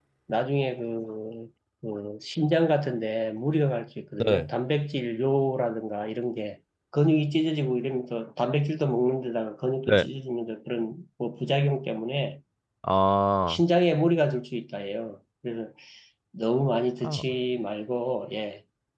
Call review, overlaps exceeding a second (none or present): none